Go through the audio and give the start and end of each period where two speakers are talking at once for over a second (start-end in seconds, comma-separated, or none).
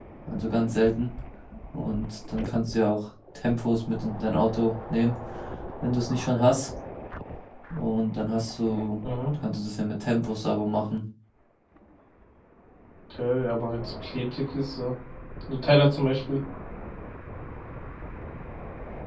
none